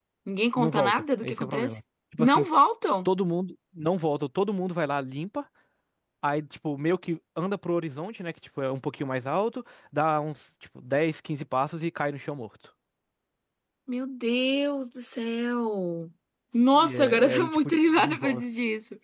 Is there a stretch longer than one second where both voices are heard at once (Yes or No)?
Yes